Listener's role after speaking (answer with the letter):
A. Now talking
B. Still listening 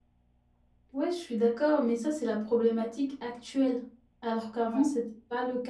B